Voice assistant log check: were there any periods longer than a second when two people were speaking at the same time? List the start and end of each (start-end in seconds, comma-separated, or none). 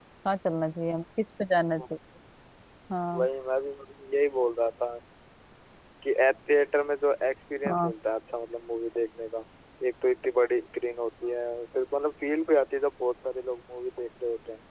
none